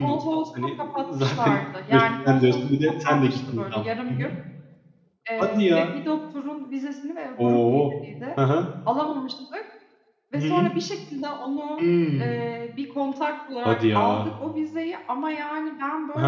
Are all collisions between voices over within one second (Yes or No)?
No